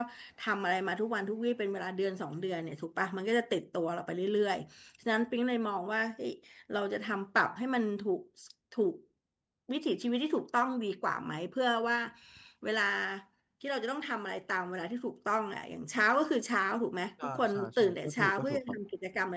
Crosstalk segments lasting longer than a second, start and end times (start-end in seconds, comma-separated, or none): 17.2-18.6